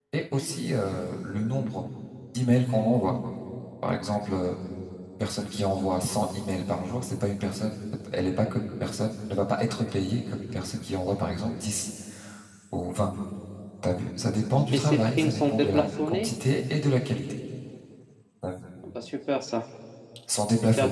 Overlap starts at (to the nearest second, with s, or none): 15 s